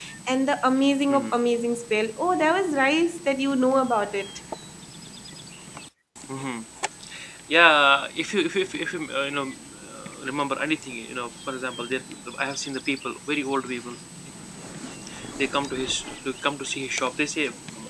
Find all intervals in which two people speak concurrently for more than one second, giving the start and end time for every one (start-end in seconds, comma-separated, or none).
none